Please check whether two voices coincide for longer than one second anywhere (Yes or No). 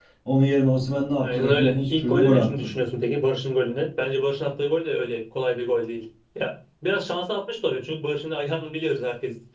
Yes